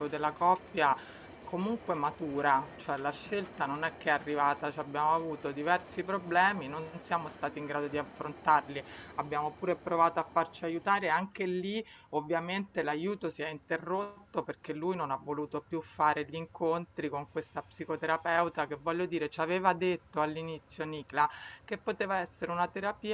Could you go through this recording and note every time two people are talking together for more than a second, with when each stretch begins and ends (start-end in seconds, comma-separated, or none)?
none